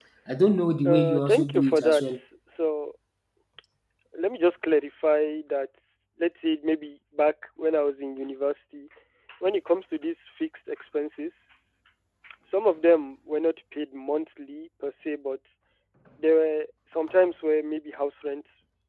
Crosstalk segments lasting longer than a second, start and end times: 0.8-2.2

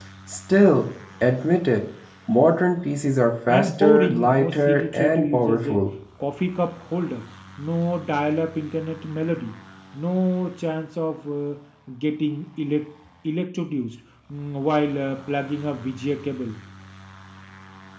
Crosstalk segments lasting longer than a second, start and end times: 3.5-5.8

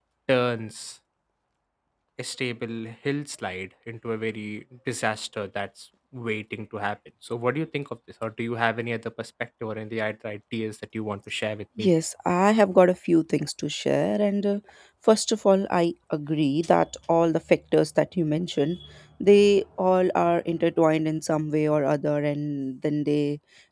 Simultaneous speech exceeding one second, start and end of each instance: none

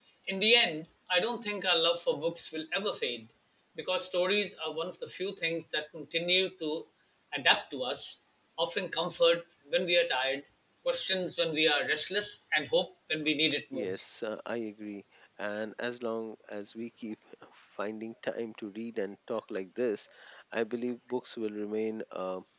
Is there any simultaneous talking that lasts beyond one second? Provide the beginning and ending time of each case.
none

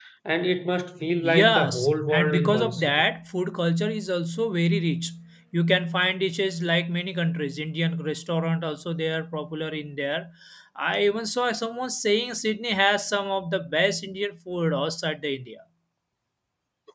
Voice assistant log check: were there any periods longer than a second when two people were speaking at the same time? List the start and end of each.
1.2-3.0

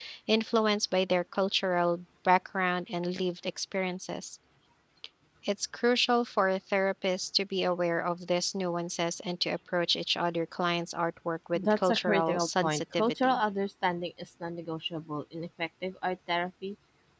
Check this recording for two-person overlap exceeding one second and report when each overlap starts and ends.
11.6-13.4

